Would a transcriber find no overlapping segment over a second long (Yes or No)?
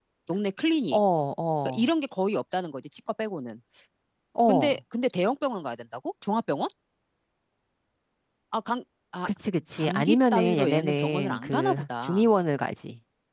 No